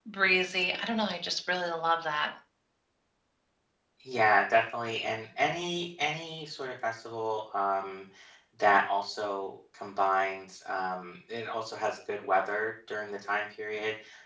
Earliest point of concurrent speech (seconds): none

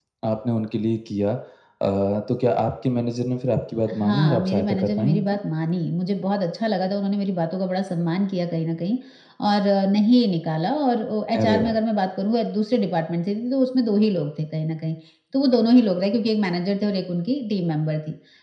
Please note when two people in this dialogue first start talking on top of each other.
4.0 s

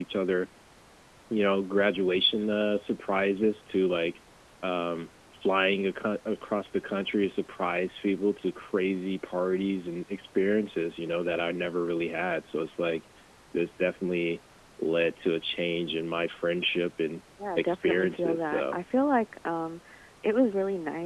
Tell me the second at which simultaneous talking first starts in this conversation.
17.4 s

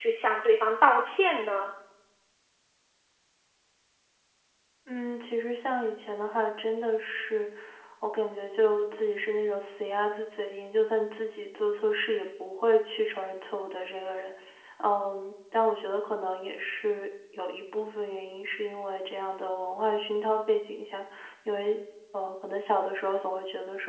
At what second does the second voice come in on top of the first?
none

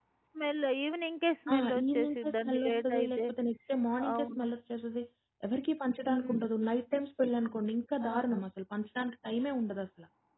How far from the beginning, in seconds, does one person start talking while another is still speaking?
1.5 s

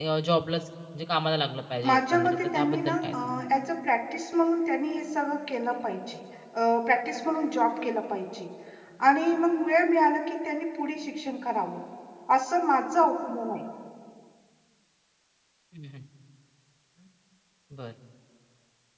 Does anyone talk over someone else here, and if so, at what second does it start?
1.8 s

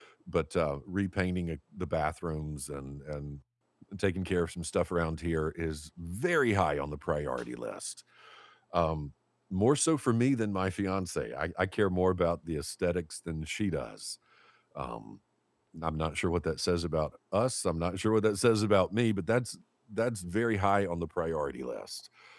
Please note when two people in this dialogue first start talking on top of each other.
none

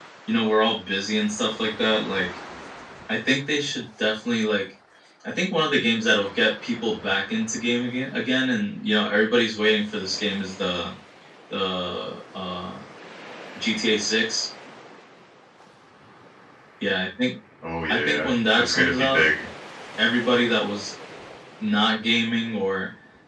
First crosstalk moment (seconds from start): 17.9 s

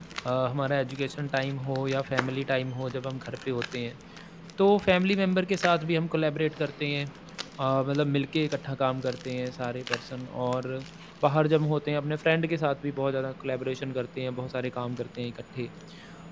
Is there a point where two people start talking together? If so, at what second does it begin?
none

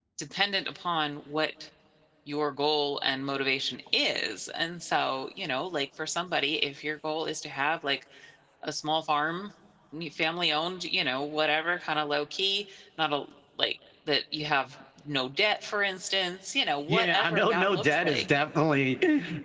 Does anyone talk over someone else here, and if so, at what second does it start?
16.9 s

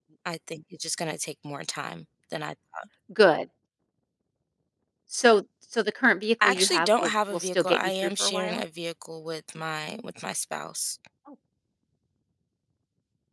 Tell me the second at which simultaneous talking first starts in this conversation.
6.4 s

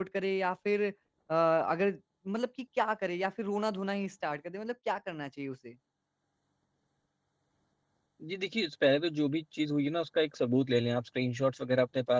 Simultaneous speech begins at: none

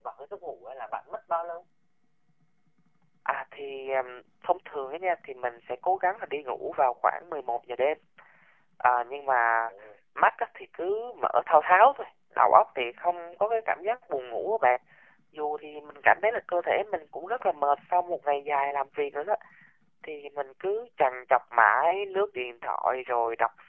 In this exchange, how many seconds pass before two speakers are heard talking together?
none

